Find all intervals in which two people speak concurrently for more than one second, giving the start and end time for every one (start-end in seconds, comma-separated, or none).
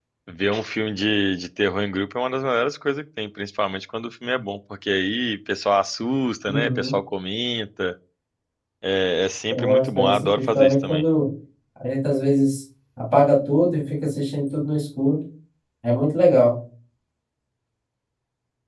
9.5-11.0